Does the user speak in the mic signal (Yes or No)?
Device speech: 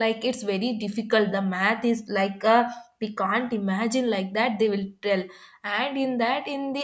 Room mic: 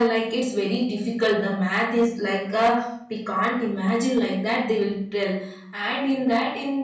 No